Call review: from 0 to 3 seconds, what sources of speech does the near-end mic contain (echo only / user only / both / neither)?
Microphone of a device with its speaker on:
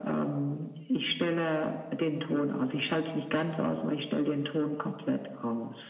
echo only